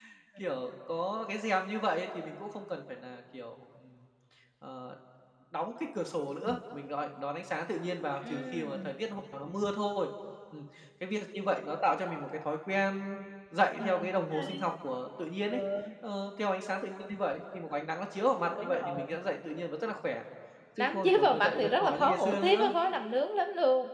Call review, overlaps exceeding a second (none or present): present